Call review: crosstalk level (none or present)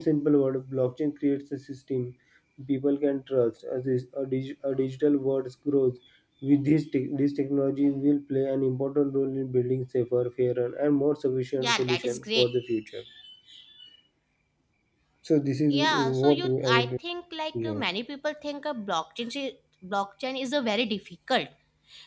present